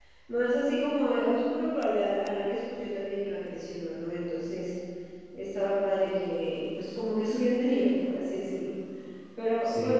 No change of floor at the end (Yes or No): Yes